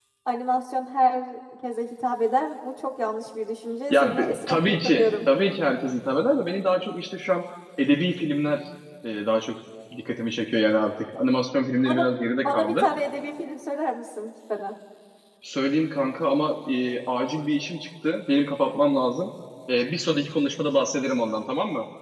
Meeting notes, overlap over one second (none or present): present